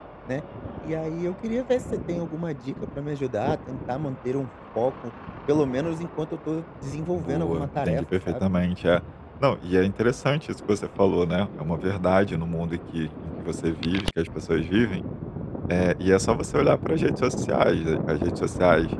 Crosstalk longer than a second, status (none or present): present